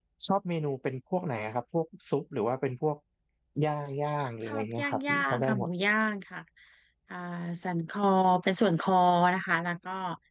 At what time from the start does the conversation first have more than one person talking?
4.4 s

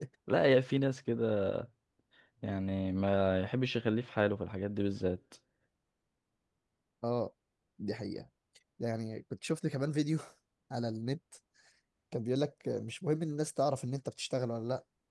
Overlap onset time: none

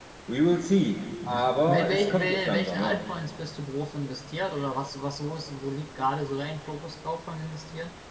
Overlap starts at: 1.3 s

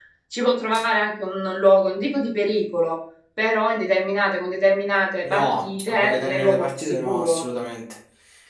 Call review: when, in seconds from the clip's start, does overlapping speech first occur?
5.2 s

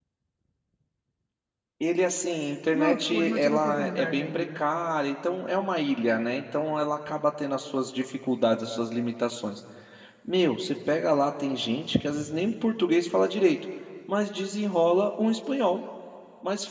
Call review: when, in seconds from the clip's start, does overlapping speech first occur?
2.7 s

